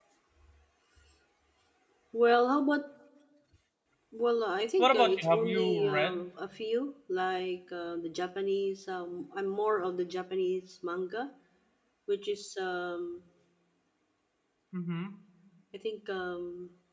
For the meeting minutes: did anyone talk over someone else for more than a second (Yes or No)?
Yes